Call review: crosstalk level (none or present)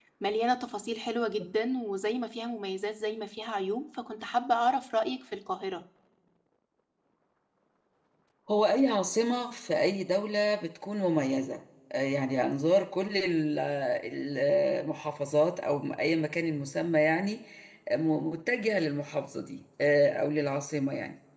none